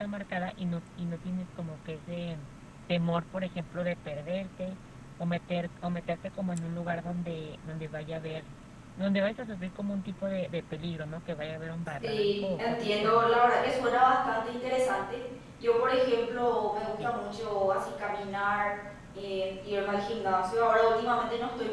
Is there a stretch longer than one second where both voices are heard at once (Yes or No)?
Yes